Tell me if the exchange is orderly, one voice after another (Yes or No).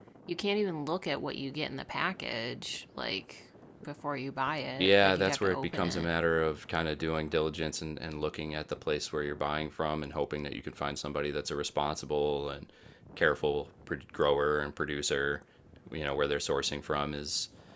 No